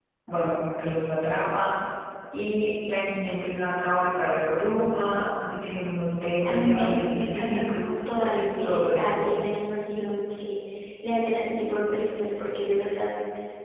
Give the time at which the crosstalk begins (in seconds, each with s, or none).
6.4 s